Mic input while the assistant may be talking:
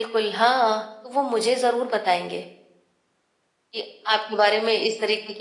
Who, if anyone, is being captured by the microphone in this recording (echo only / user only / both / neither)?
echo only